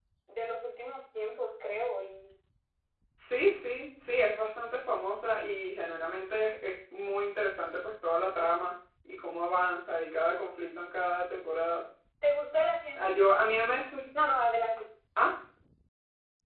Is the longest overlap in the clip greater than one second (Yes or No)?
No